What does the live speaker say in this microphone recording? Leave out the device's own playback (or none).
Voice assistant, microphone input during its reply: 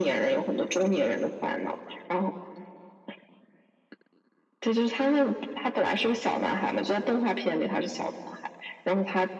none